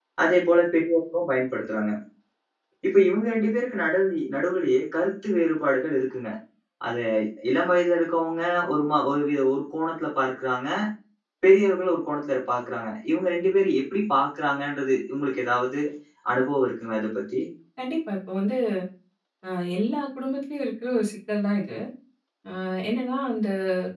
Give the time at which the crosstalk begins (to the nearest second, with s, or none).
none